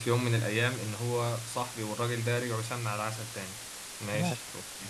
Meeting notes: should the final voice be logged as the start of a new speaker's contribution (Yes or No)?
No